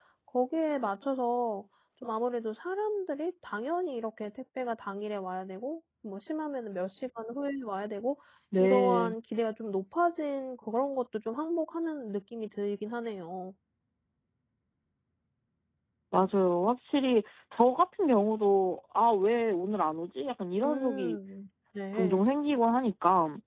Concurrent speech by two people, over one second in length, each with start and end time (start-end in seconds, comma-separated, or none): none